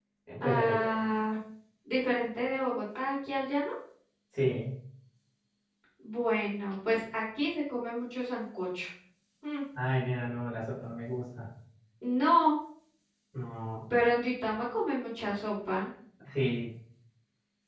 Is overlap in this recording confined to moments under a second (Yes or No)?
Yes